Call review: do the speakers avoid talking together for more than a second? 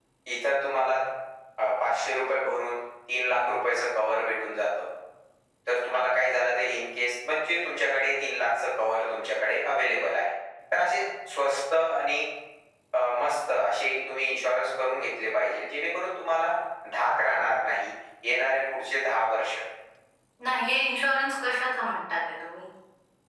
Yes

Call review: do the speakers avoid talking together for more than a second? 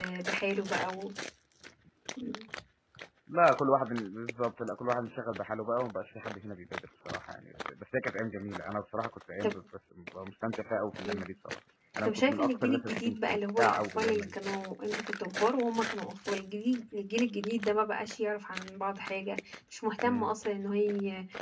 No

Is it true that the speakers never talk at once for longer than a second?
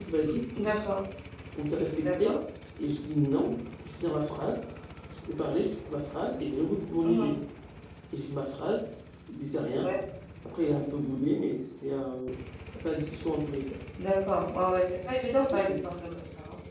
Yes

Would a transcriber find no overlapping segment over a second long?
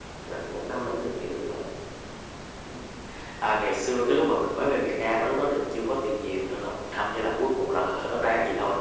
Yes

